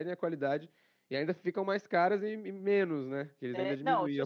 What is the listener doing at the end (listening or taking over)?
taking over